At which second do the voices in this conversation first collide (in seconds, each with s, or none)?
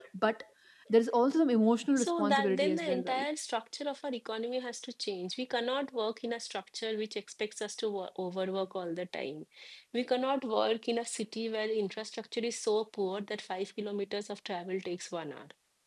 2.0 s